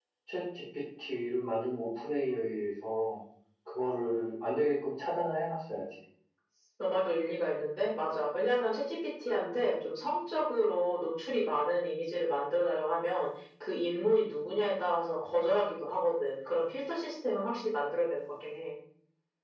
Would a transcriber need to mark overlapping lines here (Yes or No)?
No